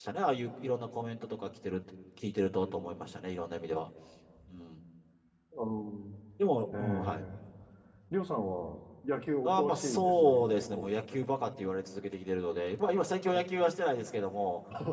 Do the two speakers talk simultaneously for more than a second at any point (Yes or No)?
Yes